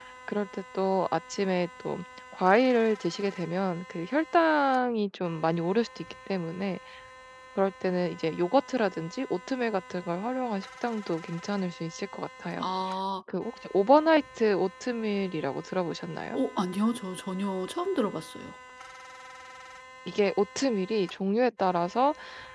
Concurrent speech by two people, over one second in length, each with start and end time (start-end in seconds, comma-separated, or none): none